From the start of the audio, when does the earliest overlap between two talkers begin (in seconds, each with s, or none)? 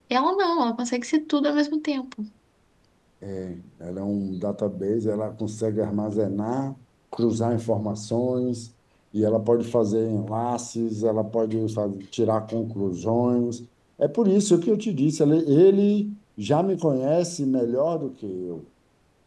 none